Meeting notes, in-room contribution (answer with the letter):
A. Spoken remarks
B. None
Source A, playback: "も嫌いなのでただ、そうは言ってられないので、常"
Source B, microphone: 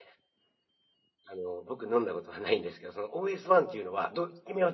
A